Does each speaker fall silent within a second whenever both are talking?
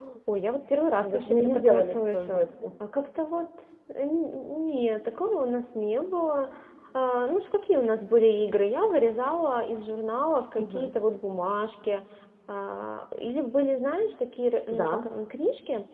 No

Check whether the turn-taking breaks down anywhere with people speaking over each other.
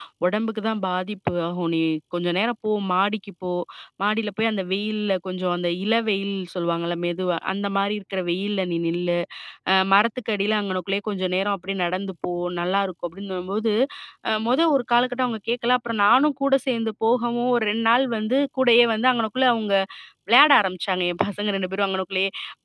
No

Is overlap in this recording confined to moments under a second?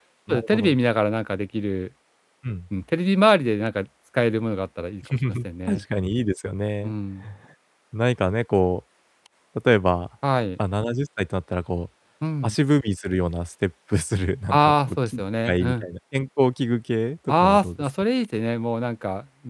No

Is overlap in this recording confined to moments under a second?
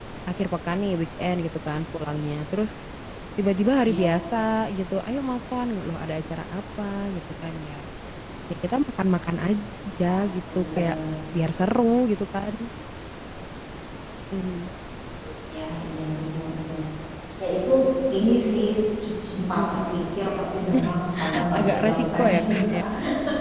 No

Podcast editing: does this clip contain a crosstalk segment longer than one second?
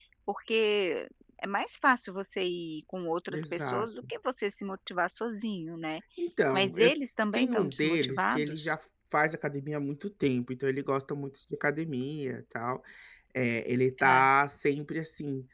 Yes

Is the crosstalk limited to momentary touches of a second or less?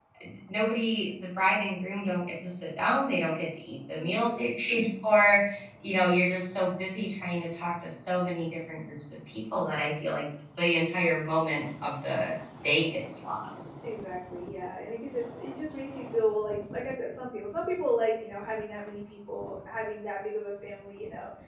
Yes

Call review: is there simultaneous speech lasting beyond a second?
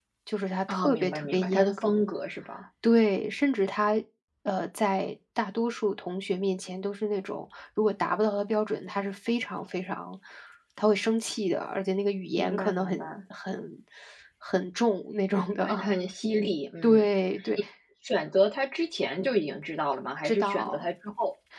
Yes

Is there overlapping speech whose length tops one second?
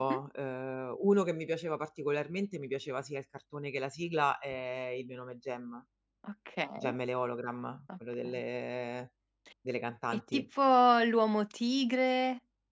No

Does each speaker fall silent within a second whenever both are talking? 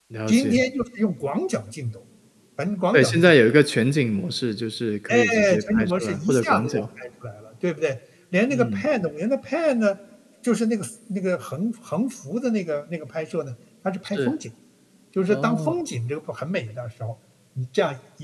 No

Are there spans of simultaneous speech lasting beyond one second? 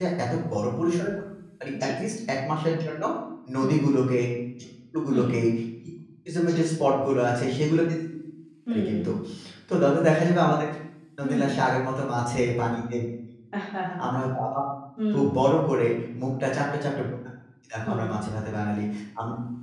No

